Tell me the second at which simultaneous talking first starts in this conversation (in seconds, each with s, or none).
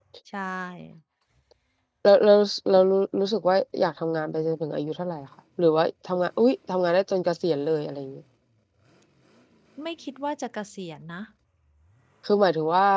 none